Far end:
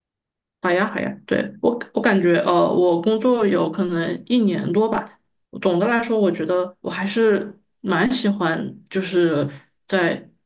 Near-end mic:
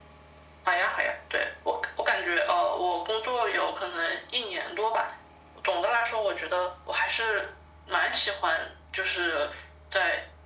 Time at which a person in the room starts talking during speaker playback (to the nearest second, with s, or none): none